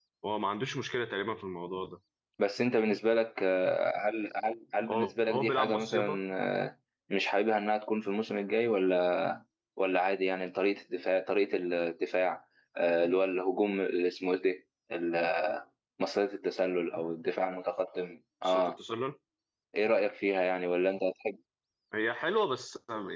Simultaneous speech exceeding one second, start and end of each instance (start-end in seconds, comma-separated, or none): 4.9-6.2